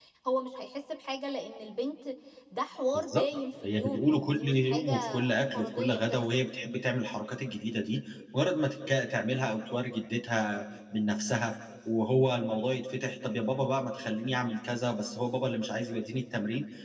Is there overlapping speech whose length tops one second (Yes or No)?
Yes